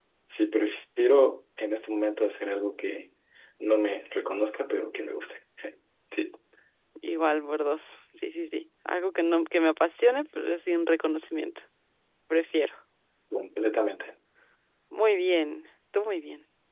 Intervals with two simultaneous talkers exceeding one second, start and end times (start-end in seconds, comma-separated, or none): none